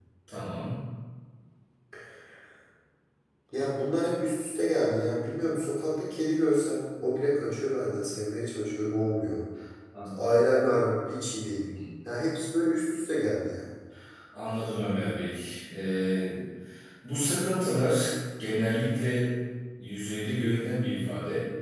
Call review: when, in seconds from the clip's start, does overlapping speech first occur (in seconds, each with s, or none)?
none